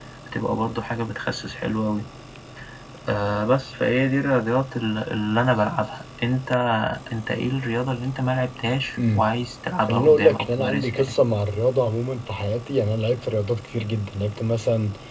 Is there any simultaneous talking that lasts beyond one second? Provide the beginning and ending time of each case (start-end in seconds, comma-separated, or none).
9.9-11.1